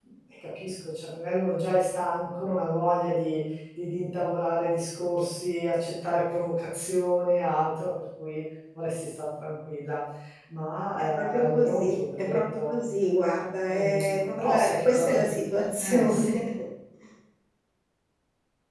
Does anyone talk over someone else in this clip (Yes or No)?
Yes